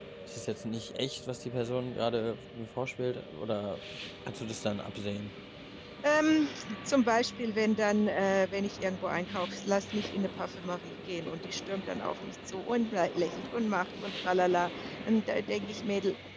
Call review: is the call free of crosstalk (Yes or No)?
Yes